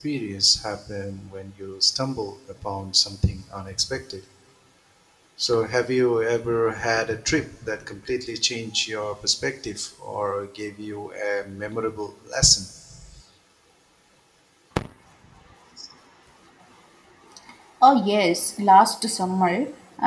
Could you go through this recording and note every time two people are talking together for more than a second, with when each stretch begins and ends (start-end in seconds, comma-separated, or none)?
none